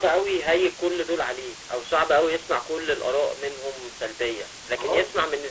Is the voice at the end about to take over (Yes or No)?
No